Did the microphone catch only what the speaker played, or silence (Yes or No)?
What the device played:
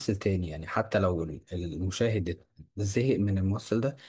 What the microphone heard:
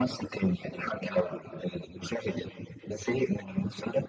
Yes